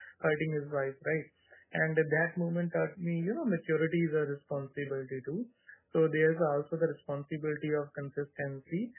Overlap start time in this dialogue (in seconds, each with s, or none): none